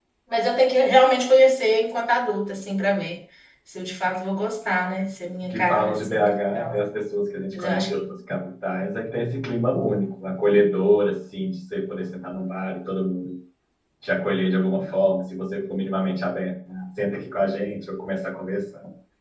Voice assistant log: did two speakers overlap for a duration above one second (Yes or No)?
Yes